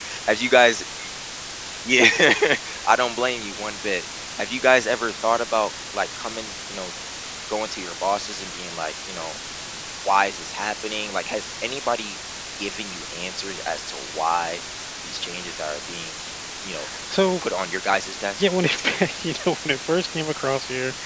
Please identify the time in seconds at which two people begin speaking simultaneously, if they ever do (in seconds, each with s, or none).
none